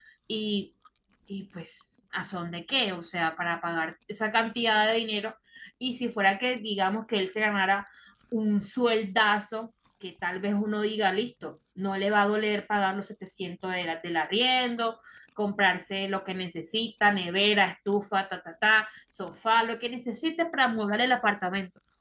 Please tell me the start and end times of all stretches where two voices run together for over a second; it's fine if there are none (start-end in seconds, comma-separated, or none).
none